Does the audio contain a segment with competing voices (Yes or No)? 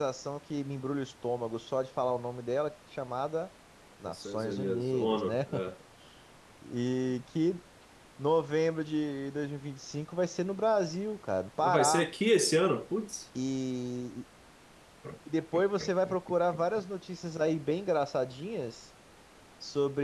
Yes